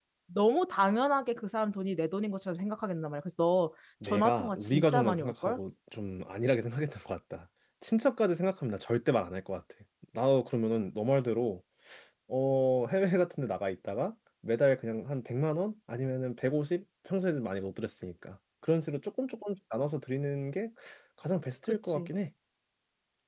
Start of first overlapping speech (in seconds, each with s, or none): 4.0 s